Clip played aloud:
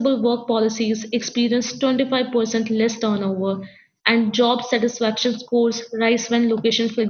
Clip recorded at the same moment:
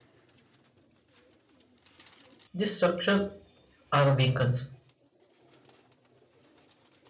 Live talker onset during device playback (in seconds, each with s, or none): 2.5 s